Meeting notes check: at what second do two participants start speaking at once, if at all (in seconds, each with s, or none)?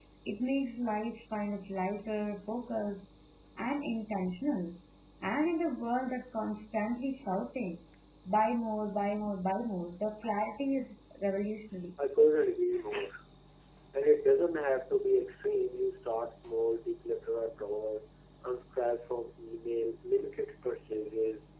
none